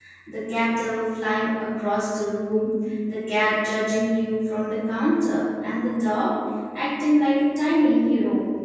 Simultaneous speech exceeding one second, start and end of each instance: none

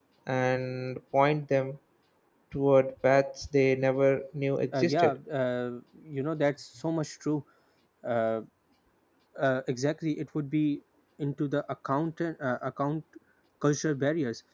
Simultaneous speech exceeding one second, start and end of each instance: none

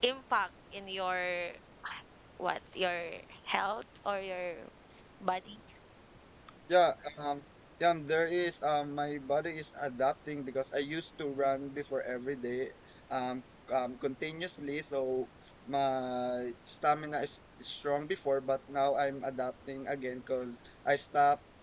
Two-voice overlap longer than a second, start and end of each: none

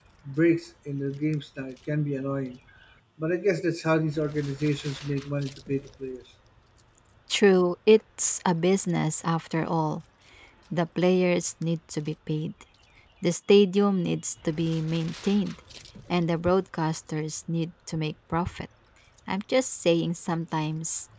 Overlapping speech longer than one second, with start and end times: none

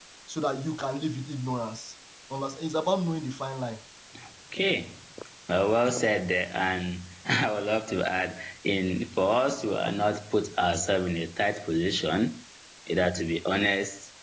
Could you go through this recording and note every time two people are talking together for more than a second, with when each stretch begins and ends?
none

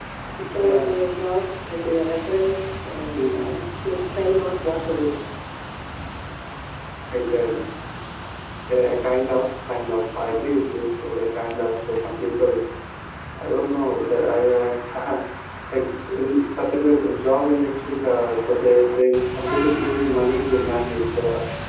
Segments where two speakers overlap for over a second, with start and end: none

